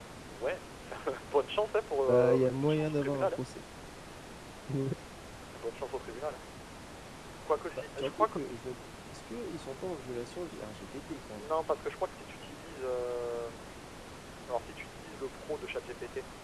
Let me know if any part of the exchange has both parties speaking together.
Yes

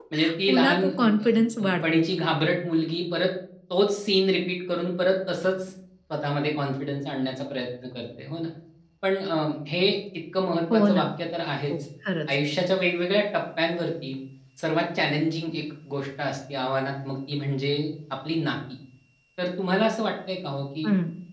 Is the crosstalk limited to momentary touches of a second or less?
No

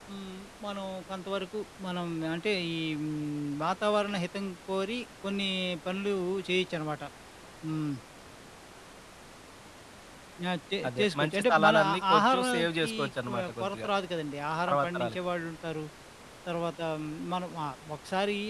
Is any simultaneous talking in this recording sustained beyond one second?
Yes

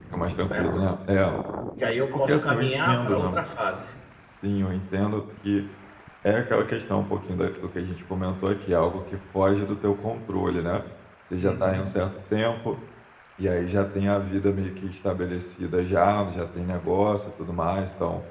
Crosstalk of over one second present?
Yes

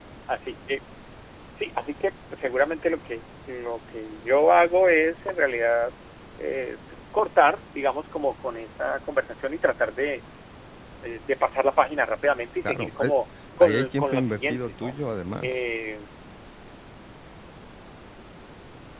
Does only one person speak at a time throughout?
No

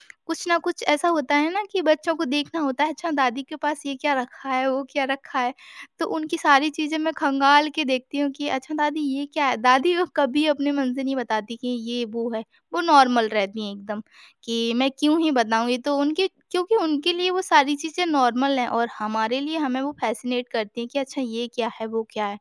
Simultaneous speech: No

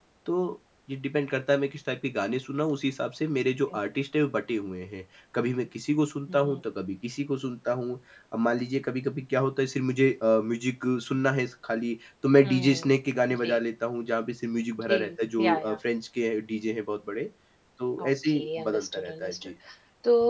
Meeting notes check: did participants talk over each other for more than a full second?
Yes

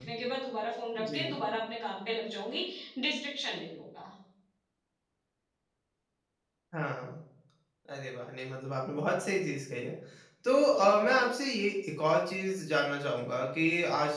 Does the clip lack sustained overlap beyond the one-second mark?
Yes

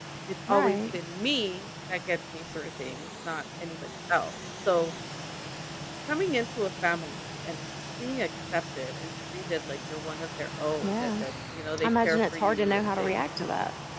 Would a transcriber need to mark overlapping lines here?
Yes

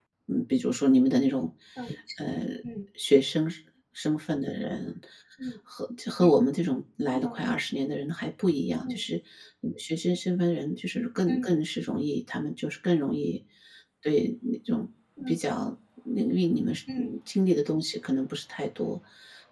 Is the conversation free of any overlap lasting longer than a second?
Yes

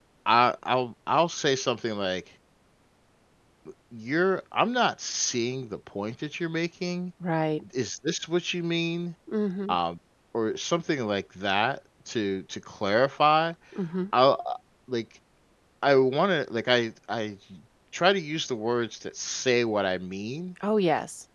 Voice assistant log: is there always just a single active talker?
Yes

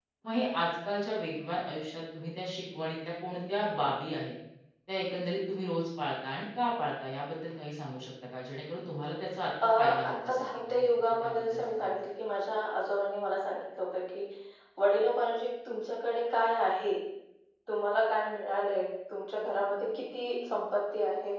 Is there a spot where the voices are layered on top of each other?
Yes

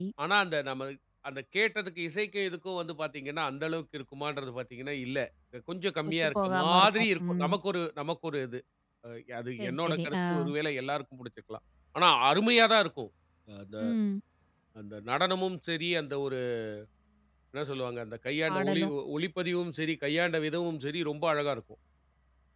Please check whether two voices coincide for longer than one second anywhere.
Yes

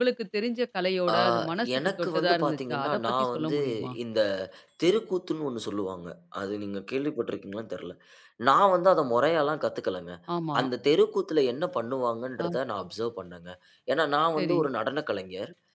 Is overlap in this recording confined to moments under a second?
No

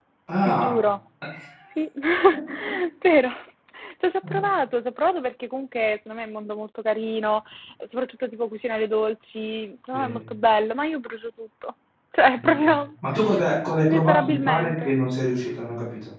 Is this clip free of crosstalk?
No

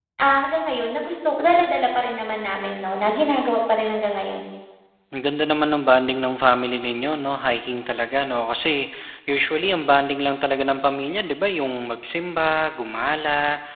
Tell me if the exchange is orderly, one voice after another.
Yes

